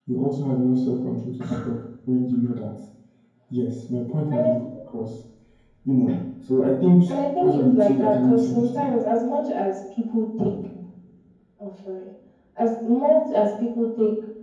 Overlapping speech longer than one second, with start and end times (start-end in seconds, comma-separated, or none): 7.4-8.9